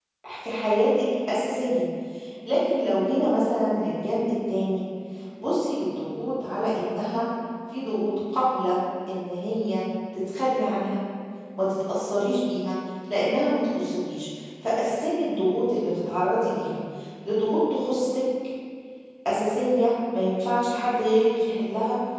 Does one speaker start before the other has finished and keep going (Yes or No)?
No